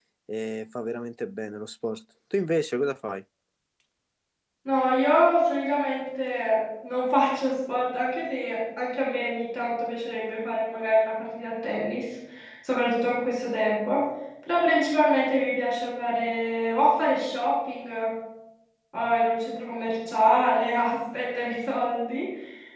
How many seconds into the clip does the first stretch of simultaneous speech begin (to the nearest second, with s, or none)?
none